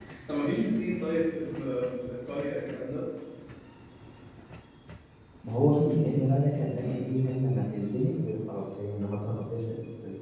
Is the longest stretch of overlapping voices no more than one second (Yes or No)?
Yes